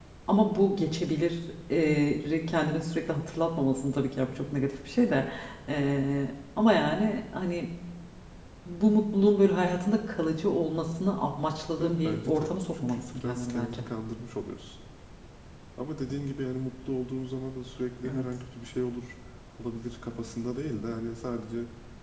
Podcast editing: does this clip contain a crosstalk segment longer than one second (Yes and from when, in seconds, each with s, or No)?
Yes, from 11.8 s